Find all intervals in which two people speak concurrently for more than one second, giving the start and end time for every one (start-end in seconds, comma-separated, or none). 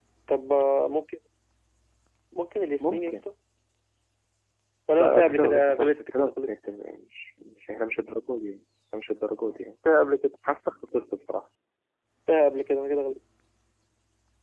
5.0-6.5